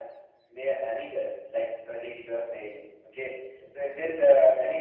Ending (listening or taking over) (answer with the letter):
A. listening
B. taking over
A